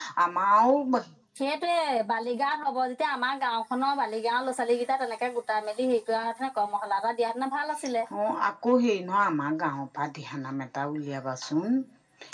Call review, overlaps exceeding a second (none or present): none